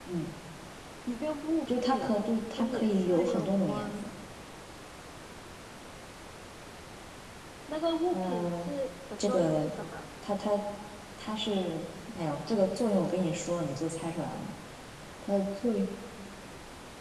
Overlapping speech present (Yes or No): Yes